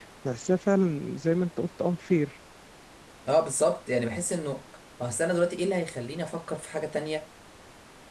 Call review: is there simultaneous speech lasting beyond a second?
No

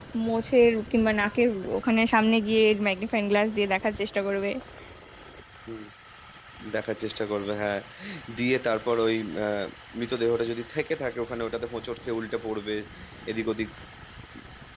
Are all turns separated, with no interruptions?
Yes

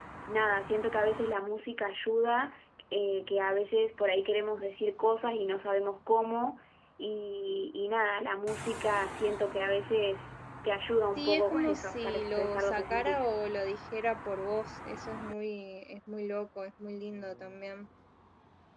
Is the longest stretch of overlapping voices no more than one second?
No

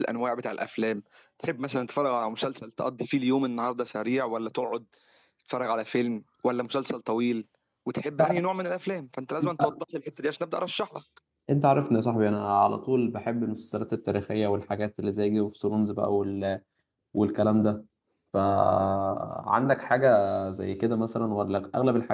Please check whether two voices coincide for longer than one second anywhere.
No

